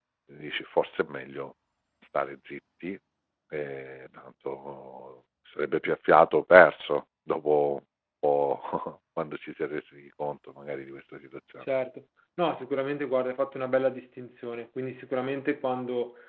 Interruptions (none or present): none